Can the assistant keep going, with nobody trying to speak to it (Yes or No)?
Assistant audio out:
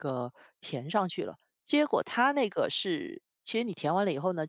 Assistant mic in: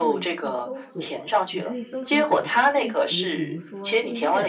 No